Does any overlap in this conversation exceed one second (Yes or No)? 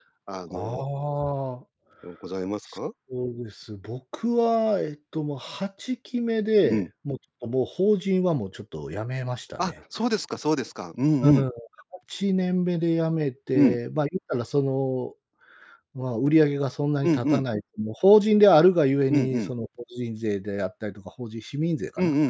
No